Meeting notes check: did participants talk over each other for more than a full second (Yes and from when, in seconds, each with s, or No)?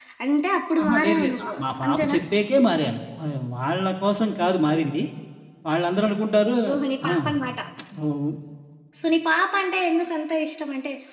Yes, from 0.8 s